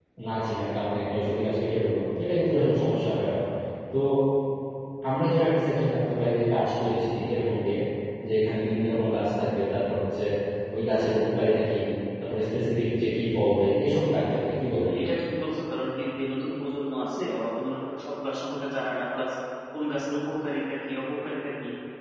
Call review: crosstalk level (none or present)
none